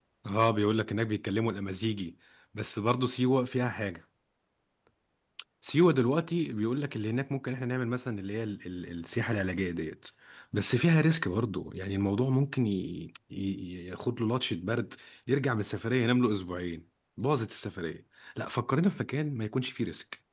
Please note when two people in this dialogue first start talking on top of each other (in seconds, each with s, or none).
none